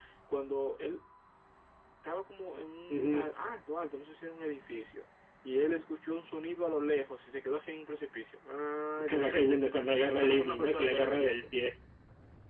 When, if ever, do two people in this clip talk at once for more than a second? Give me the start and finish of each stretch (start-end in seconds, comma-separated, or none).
10.2-11.4